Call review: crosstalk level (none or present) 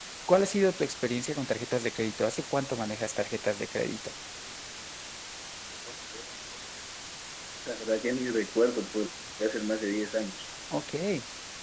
none